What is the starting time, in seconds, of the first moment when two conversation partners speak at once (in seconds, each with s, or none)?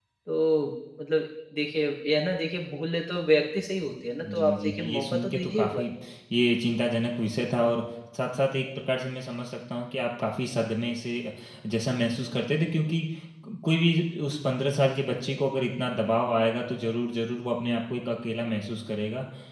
4.2 s